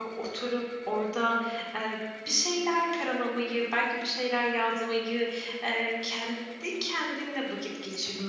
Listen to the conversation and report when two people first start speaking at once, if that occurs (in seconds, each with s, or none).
none